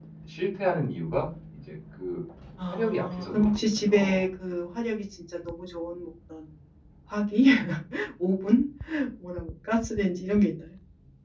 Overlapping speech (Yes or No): Yes